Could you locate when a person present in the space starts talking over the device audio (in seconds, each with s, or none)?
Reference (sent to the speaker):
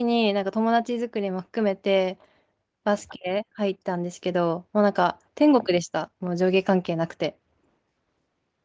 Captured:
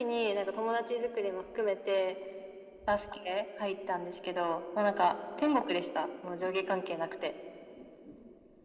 none